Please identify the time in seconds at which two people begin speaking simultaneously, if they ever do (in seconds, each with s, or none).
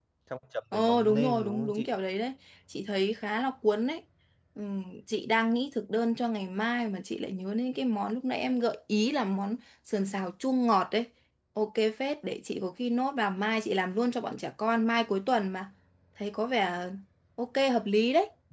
0.7 s